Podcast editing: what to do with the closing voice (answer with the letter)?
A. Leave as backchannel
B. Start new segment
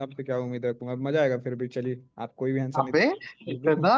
B